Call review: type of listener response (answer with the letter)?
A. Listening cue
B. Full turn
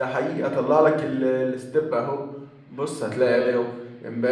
A